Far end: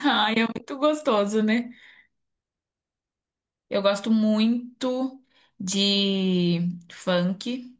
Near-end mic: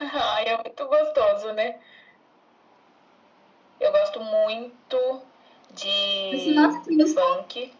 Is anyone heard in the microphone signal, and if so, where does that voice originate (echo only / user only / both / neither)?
both